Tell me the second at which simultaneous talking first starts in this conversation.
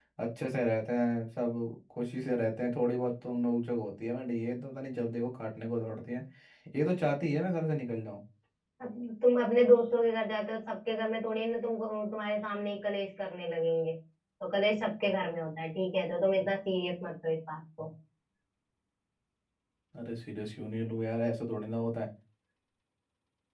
none

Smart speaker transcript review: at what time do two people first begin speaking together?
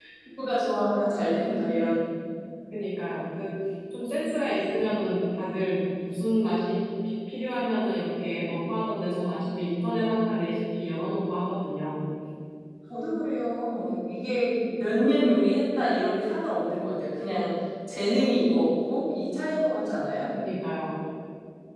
none

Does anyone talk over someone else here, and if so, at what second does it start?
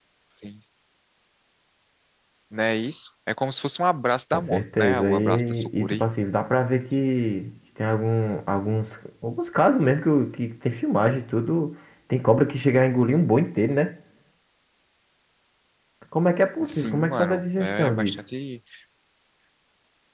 4.3 s

